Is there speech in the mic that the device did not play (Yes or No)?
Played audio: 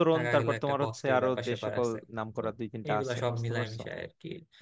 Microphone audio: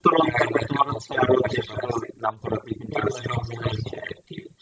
No